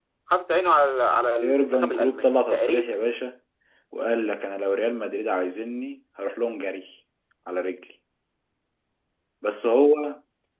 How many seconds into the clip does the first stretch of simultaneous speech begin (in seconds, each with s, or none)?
1.4 s